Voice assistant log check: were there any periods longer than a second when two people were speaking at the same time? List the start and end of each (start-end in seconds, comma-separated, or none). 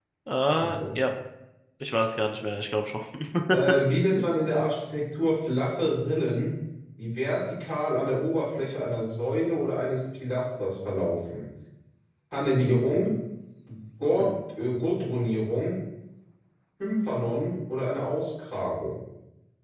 none